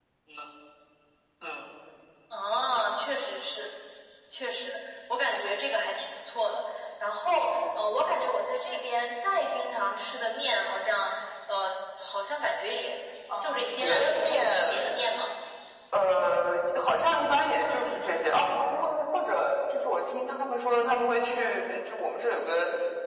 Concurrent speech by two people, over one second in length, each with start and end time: 13.4-14.8

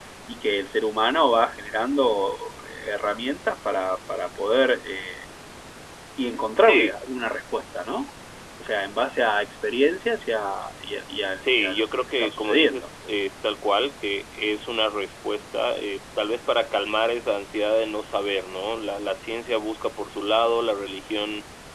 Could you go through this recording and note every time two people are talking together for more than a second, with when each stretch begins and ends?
11.4-12.9

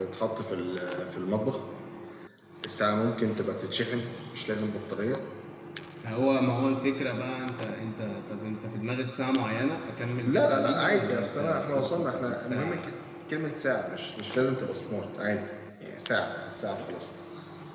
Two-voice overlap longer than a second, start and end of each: 10.2-12.8

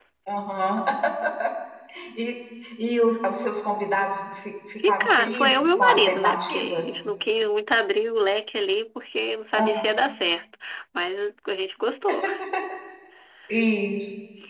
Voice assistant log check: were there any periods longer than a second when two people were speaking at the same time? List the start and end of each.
4.8-6.8

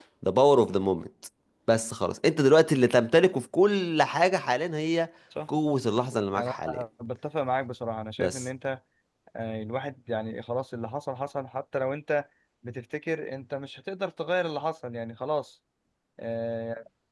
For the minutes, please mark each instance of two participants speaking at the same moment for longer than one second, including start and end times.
none

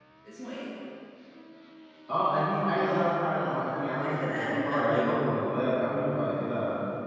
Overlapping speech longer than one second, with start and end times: 2.8-5.4

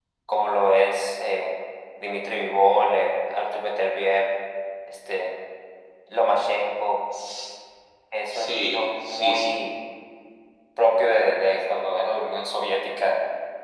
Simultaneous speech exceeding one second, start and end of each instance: 8.3-9.6

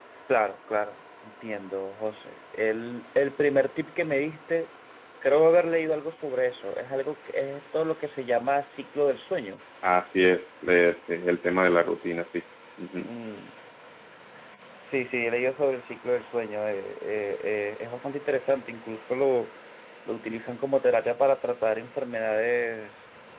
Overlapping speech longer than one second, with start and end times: none

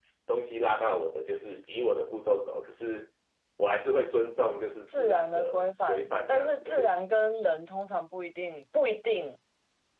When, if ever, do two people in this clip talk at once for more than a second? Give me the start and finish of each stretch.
4.9-6.9

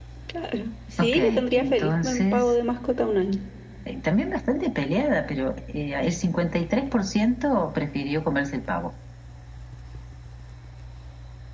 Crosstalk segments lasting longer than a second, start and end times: 1.0-2.5

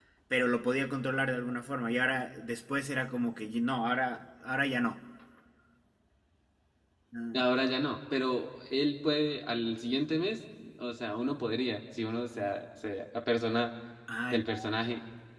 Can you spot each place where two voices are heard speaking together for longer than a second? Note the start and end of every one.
none

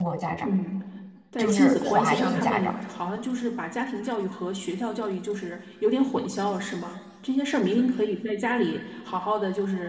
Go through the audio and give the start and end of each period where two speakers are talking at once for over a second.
1.4-2.7

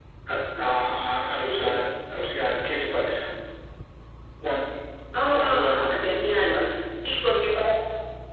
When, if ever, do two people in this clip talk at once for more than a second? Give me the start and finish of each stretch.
5.3-6.5

